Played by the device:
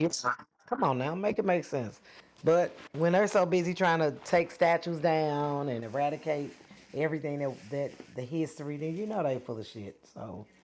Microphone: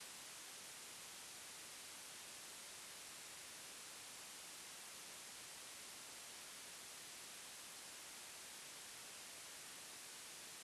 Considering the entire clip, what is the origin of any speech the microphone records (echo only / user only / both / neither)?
neither